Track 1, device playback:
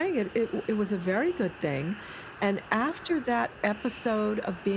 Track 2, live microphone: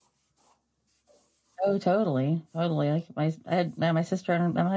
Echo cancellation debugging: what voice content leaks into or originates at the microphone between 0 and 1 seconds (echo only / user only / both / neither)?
neither